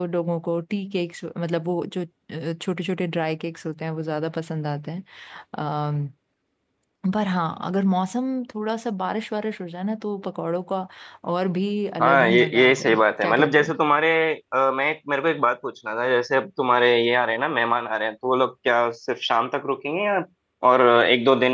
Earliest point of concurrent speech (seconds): 12 s

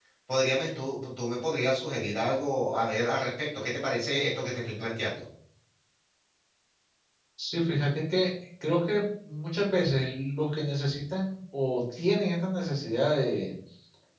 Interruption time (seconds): none

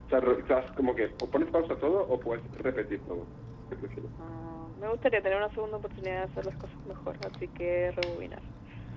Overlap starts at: none

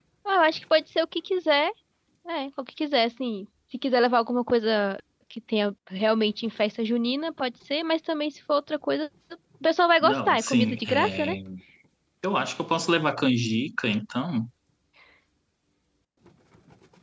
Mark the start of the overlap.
10 s

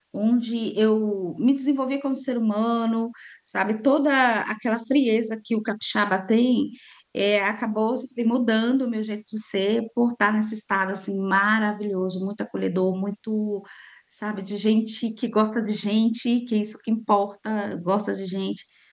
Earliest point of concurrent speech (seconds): none

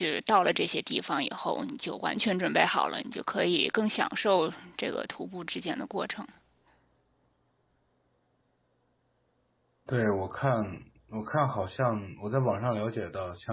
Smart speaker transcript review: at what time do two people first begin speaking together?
none

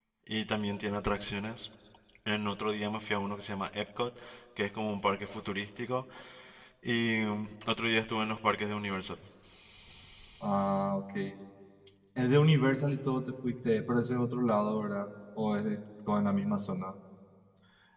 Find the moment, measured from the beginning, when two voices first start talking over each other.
none

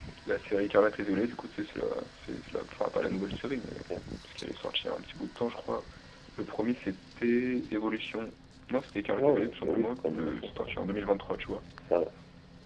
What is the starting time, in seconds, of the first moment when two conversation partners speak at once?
9 s

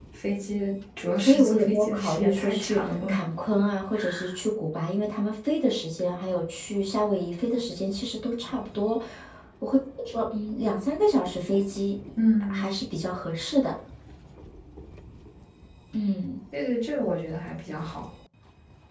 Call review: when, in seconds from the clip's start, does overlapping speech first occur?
1 s

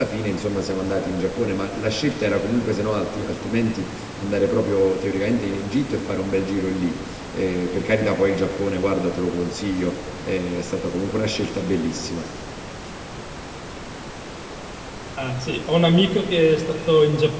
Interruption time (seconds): none

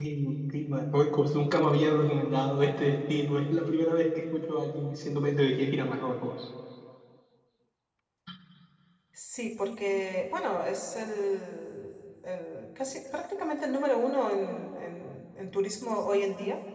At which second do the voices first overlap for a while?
none

